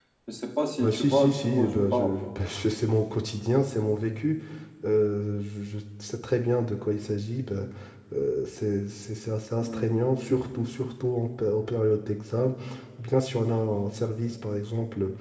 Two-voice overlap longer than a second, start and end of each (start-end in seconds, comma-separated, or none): 0.8-2.1